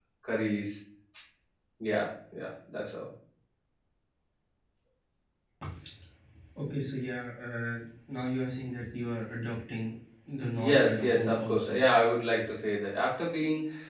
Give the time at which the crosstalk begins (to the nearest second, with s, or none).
11 s